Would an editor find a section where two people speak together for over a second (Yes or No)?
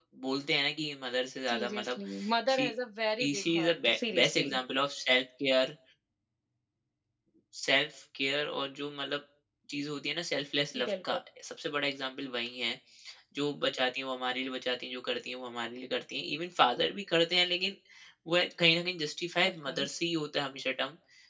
Yes